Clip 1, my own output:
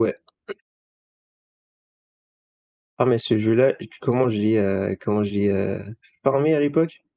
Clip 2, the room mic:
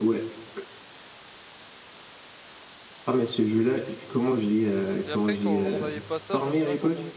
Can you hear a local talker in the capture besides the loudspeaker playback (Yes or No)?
Yes